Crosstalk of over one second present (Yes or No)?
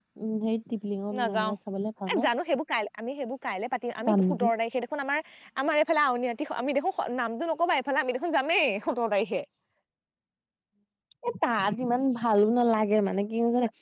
No